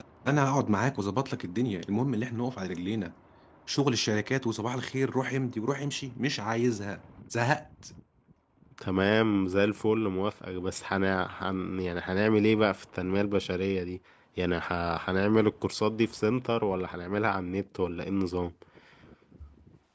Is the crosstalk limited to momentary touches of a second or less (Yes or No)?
Yes